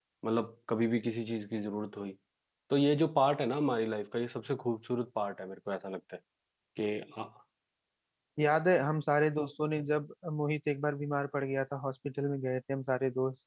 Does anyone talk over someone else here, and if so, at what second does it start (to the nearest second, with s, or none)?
none